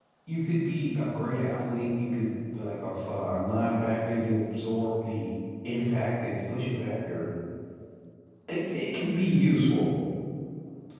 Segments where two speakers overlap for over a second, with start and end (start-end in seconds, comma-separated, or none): none